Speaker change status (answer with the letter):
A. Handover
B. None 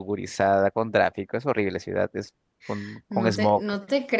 A